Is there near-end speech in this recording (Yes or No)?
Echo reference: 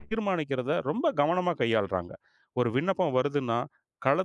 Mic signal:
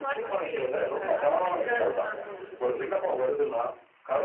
Yes